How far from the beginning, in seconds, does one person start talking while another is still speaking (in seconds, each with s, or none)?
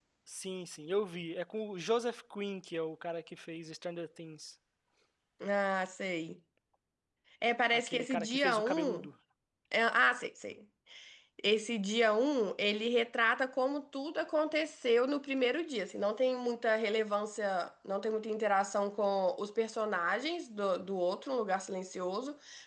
7.7 s